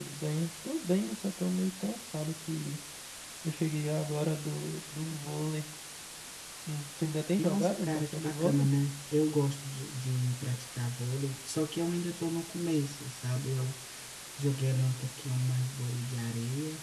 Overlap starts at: 7.4 s

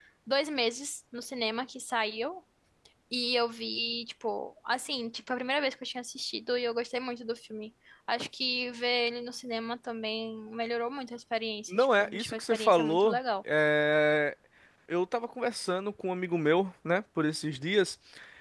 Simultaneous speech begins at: 11.7 s

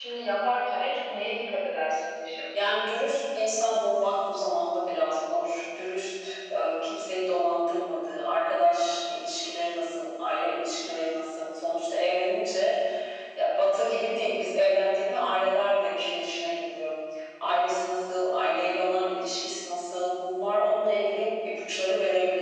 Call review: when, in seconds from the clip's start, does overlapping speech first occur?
none

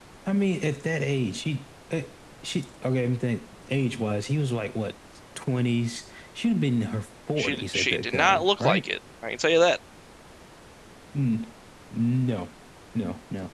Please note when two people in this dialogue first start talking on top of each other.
7.4 s

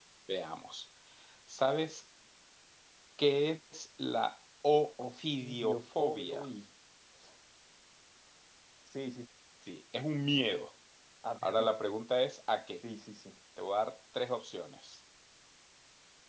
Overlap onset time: 5.2 s

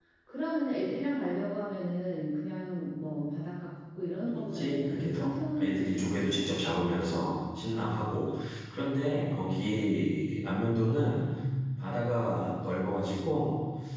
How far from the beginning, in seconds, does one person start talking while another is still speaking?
4.3 s

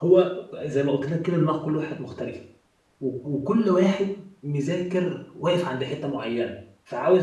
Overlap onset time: none

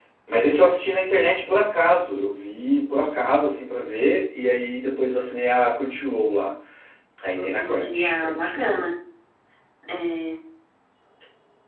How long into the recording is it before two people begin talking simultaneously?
7.3 s

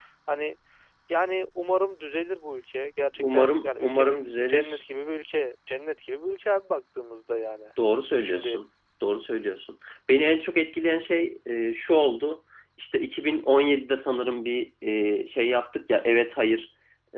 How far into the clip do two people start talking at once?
3.2 s

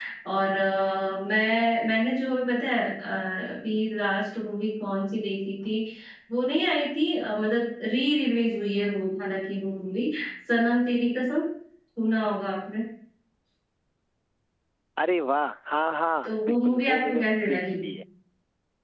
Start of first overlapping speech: 16.2 s

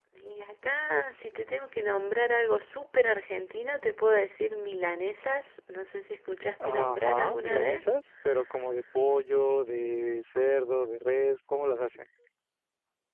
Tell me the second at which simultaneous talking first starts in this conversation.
6.6 s

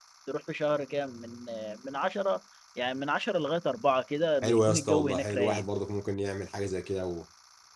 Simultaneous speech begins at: 4.4 s

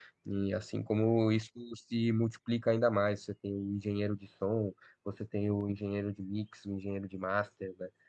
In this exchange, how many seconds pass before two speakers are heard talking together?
none

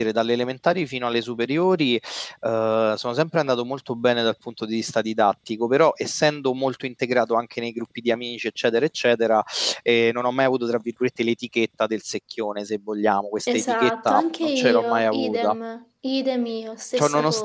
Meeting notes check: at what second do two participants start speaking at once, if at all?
13.5 s

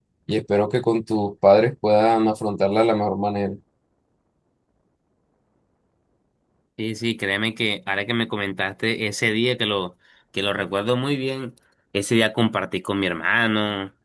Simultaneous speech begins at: none

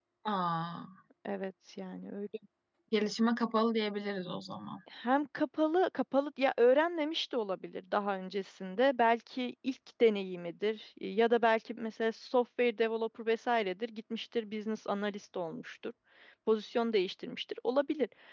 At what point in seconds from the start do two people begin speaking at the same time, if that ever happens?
none

